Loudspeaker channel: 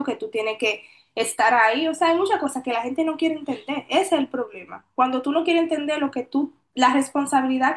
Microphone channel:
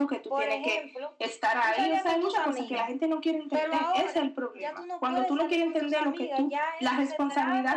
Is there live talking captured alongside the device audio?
Yes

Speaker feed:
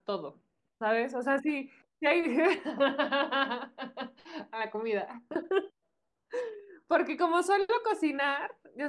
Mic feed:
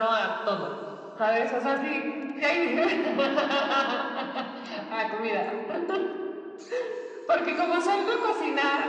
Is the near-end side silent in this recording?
Yes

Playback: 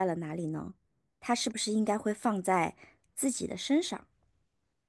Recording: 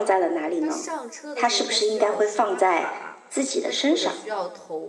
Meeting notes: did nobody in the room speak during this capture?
No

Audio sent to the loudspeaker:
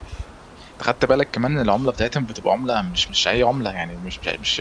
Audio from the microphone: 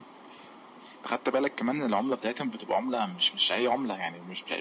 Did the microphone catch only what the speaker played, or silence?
Yes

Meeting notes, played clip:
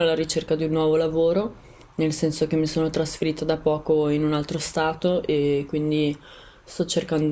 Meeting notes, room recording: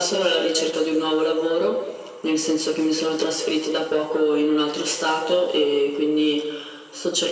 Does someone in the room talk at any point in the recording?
No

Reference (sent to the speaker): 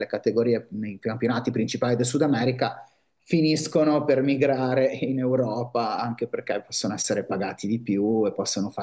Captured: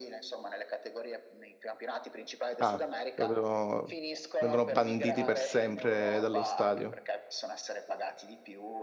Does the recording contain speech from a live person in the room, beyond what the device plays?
Yes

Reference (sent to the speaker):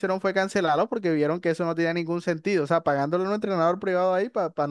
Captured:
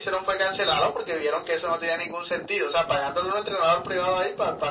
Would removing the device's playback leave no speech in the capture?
Yes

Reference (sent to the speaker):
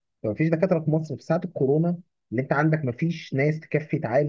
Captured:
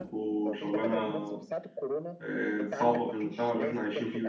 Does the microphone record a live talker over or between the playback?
Yes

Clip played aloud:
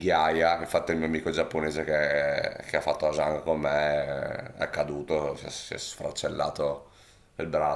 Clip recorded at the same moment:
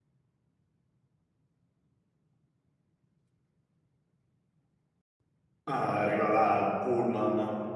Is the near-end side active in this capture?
Yes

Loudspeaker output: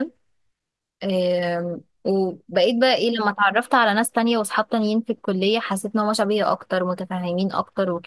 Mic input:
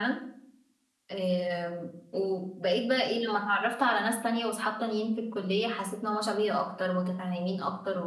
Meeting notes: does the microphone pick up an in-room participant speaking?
No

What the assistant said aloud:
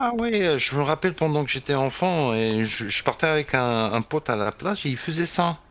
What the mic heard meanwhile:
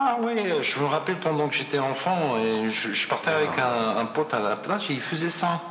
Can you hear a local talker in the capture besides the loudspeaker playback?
Yes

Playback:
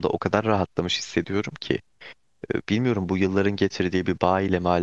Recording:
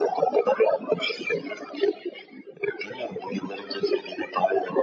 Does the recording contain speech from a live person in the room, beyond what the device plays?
No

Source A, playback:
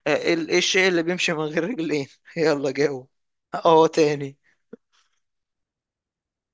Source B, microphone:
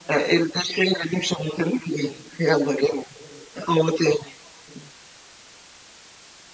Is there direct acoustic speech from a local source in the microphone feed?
No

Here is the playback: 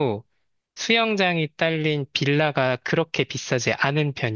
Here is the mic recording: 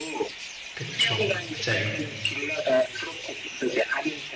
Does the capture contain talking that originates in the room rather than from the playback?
Yes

